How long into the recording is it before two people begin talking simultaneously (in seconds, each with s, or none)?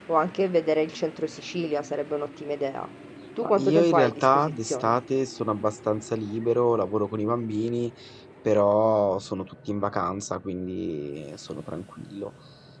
3.4 s